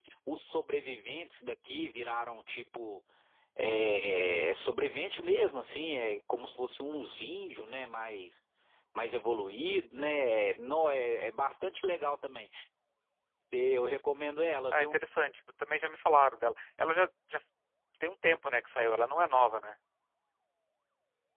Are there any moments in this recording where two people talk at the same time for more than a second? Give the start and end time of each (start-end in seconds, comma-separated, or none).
none